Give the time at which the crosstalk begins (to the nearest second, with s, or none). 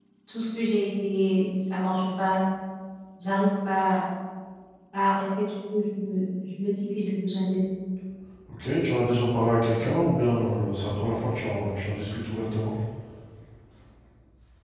none